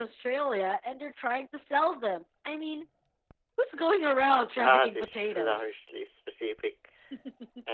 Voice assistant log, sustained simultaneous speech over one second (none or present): present